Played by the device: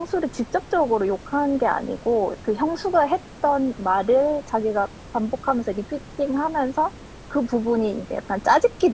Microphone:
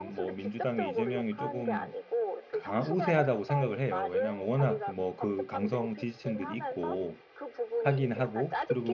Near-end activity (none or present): present